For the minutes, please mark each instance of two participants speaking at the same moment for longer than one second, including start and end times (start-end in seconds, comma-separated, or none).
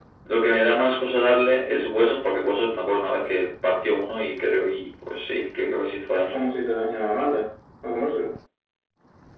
none